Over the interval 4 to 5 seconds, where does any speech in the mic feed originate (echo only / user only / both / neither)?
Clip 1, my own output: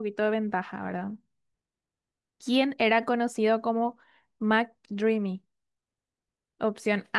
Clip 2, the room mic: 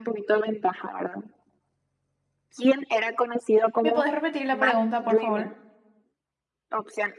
both